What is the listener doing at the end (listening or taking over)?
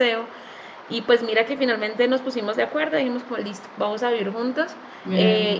listening